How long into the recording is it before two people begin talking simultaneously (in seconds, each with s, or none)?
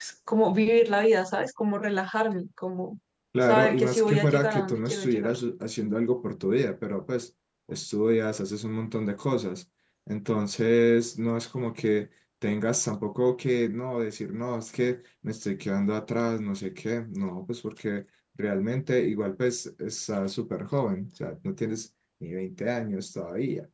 3.4 s